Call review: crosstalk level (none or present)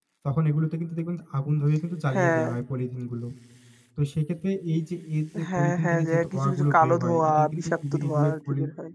present